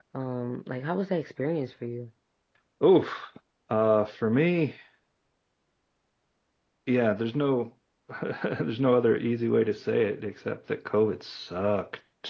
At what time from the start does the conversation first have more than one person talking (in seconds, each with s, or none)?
none